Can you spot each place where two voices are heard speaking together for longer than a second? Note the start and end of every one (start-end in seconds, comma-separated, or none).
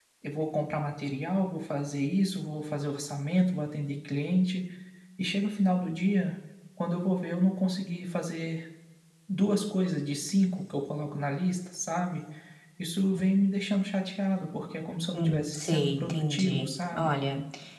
15.2-17.1